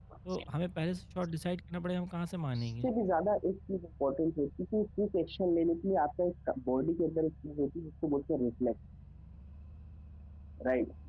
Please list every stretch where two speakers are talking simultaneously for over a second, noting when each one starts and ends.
none

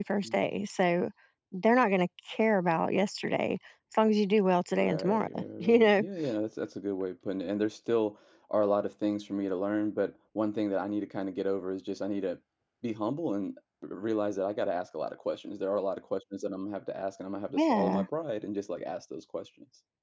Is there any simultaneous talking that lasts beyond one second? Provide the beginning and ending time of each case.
4.8-6.0

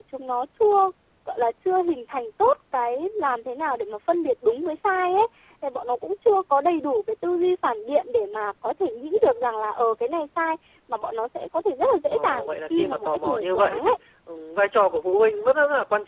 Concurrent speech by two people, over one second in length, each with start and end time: 12.1-13.9

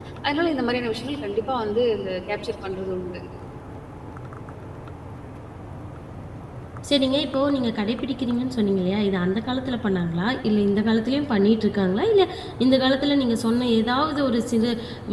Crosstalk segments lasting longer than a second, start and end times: none

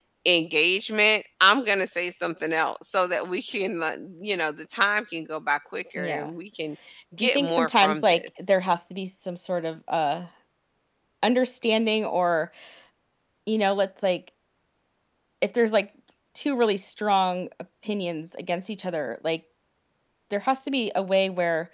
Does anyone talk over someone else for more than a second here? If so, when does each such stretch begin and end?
7.2-8.6

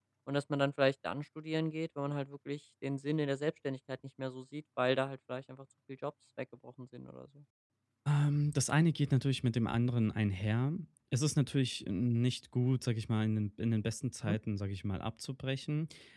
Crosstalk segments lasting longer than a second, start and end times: none

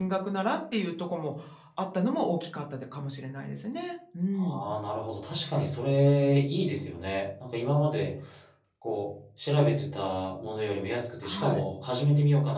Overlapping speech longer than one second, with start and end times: none

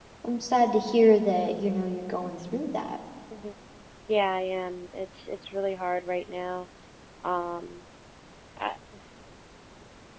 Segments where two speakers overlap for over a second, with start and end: none

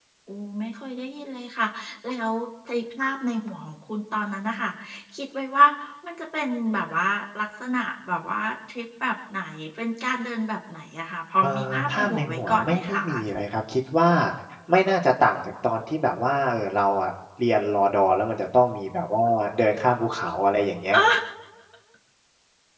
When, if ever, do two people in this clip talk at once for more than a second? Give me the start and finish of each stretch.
11.4-13.0

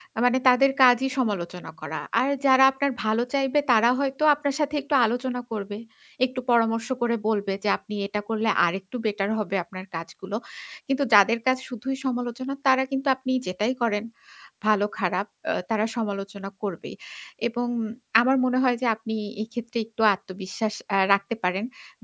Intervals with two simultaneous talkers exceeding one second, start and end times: none

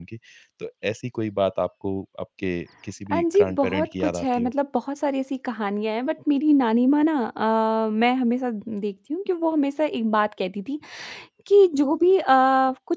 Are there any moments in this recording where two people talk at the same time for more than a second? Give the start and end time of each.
3.1-4.5

